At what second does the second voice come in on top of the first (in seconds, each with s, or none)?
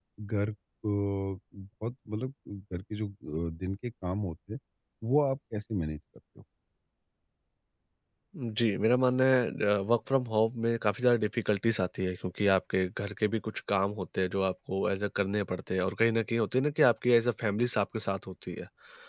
none